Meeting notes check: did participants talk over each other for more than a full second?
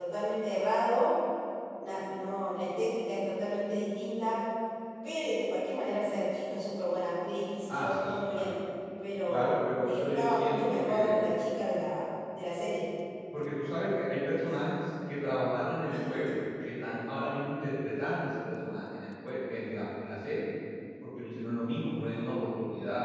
Yes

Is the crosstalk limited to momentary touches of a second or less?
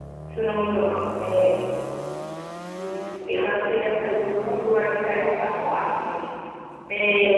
No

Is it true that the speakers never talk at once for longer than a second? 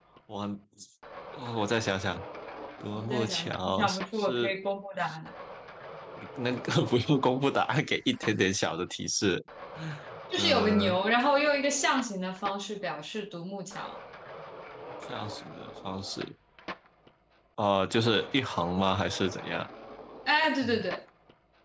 No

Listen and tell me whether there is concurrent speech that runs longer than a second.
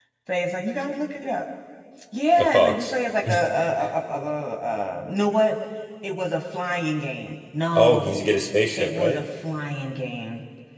No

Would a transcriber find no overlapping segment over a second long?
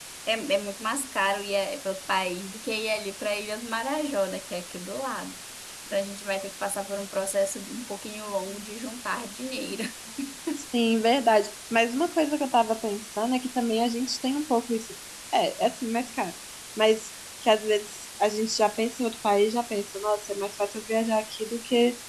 Yes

